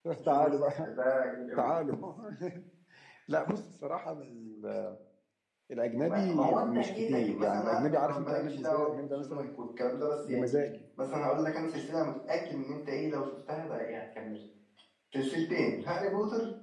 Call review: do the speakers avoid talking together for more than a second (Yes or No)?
No